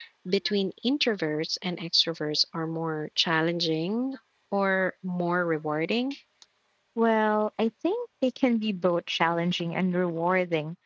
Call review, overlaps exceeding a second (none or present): none